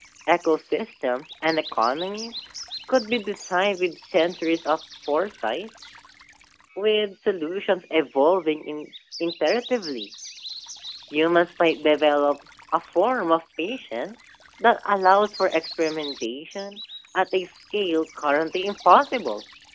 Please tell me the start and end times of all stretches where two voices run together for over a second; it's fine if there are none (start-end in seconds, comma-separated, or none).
none